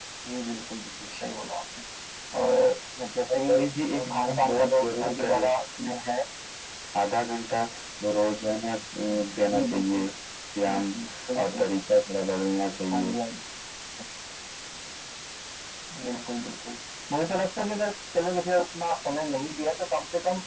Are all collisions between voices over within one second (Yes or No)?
No